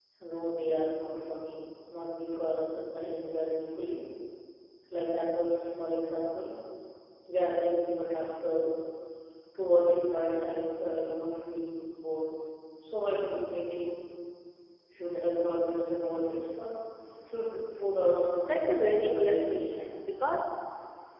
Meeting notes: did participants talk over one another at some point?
Yes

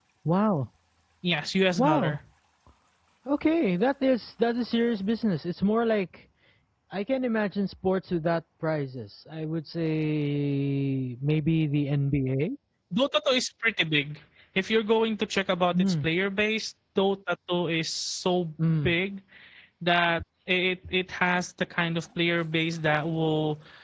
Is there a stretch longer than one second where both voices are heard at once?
No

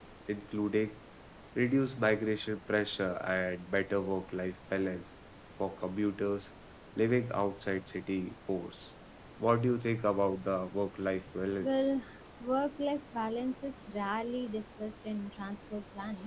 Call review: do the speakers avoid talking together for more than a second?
Yes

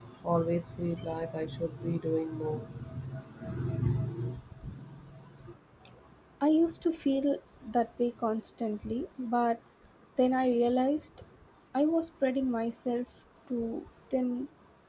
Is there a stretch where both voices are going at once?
No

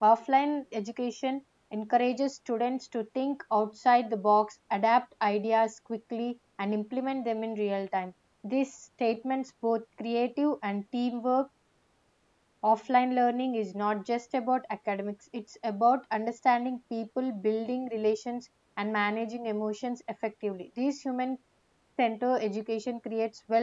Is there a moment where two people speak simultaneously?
No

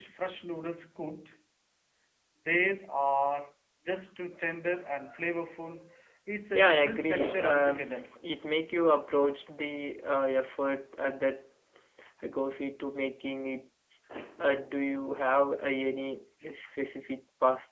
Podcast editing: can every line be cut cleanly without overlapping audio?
No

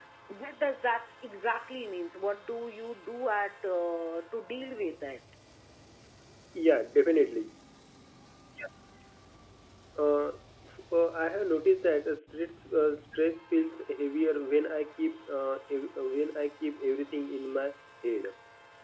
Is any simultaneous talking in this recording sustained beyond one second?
No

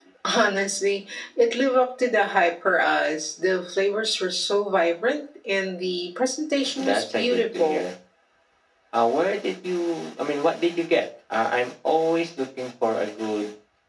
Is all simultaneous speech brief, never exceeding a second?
No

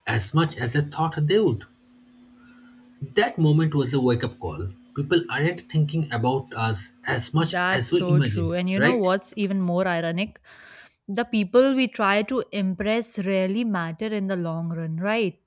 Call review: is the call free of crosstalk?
No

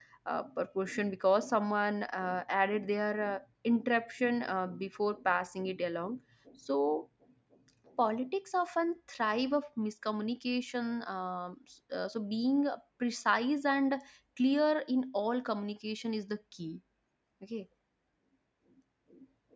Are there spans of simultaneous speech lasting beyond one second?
No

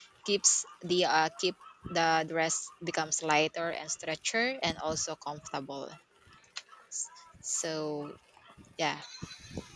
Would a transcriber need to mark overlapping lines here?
No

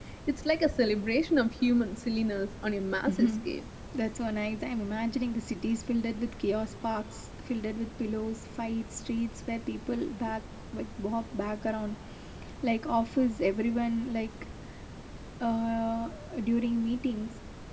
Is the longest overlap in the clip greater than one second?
No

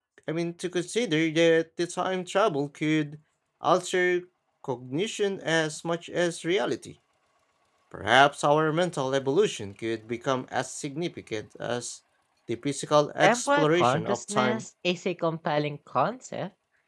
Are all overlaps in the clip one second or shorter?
No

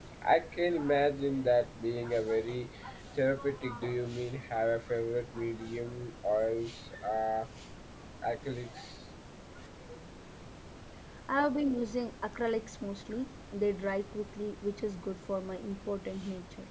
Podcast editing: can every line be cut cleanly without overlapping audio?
Yes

